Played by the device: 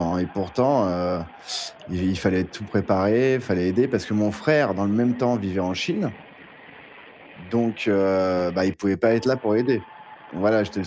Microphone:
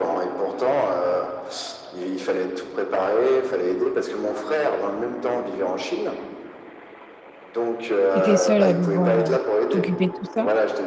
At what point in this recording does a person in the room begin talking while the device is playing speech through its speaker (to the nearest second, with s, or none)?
8 s